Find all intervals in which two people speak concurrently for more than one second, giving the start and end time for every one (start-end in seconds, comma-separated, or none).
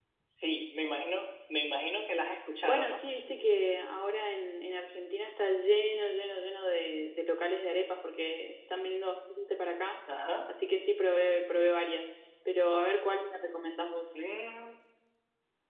none